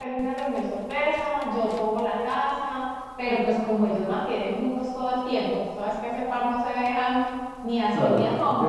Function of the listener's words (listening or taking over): taking over